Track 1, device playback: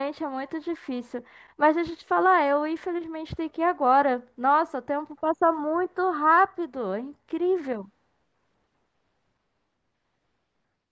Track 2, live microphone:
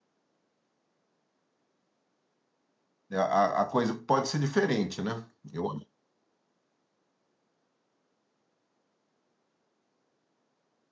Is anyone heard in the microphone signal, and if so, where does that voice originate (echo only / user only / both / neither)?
user only